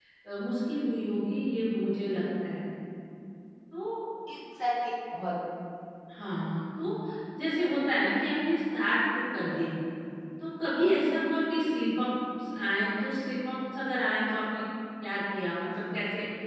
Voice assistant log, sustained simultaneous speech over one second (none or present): none